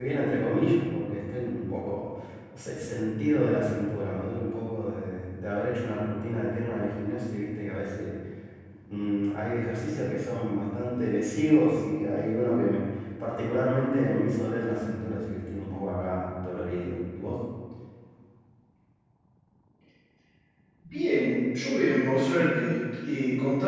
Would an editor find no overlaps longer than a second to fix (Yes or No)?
Yes